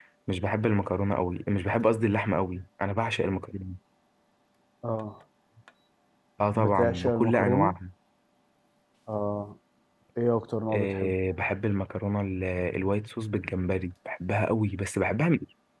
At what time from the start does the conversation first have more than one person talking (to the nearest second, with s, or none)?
7 s